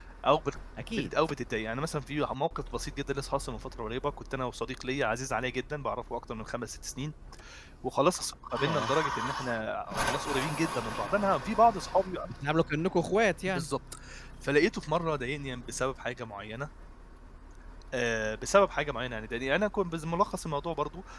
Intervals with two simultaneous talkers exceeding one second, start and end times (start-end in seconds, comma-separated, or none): none